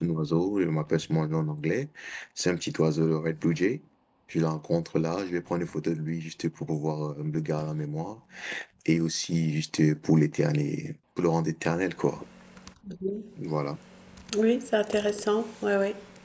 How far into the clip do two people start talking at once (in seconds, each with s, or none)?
none